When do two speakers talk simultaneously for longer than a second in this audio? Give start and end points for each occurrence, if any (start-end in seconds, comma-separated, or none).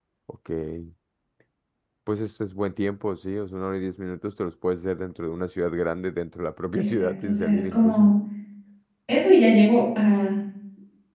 6.7-8.1